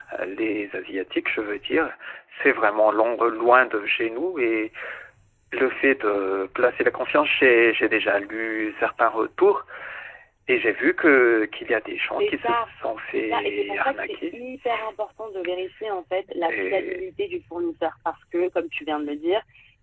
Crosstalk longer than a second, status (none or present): present